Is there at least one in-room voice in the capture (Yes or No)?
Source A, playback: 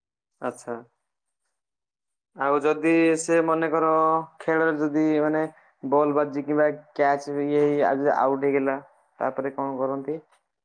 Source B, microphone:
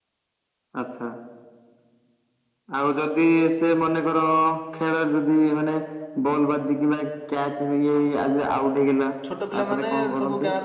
Yes